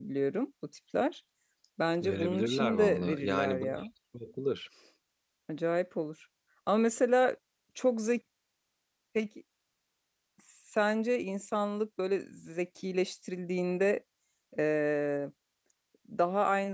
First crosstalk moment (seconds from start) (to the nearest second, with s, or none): 2 s